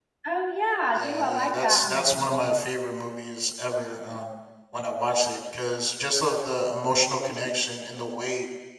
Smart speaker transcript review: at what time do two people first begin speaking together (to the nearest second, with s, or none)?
1 s